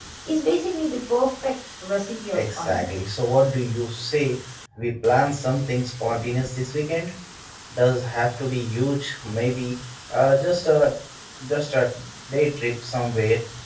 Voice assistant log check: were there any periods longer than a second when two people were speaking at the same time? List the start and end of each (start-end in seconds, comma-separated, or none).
none